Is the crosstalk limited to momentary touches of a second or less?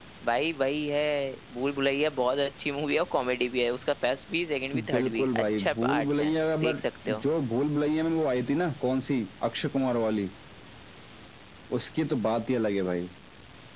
No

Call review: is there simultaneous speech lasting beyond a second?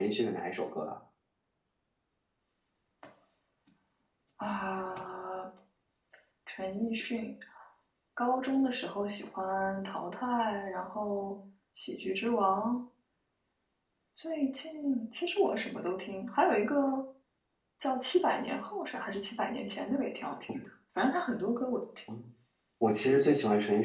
No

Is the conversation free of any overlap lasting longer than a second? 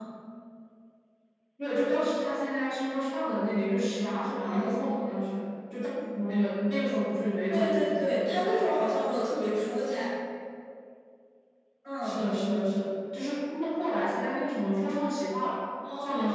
No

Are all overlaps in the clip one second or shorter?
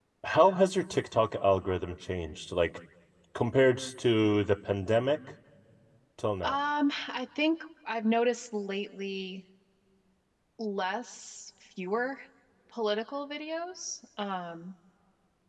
Yes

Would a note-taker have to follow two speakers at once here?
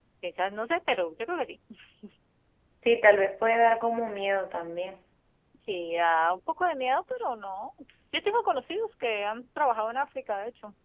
No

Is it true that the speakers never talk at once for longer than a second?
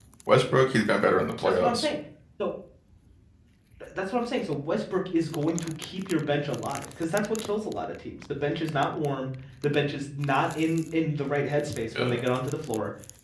Yes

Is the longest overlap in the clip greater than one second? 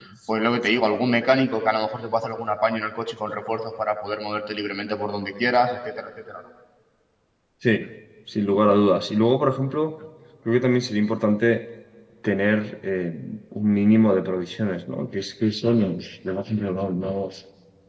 No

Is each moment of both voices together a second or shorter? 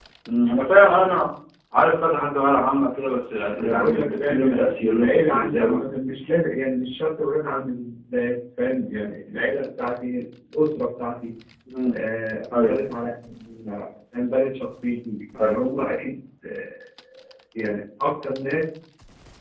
No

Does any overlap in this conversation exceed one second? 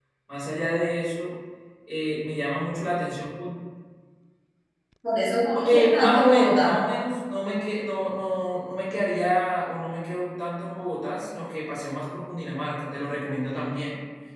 Yes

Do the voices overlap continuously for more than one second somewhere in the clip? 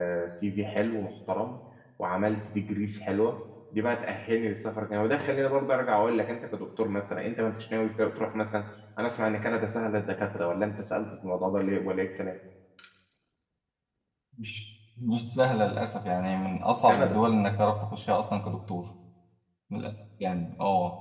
No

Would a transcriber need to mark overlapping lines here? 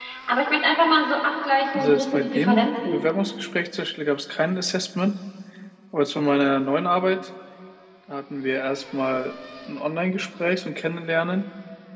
Yes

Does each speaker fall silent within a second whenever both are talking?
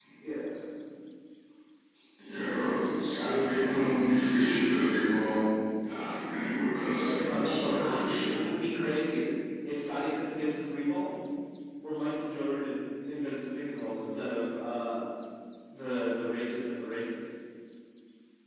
No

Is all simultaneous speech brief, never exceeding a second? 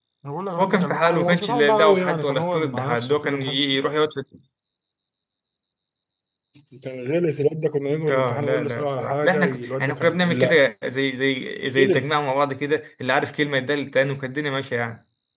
No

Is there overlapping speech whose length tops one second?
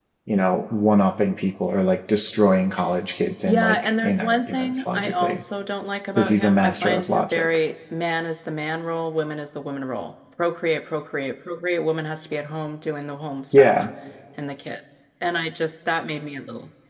Yes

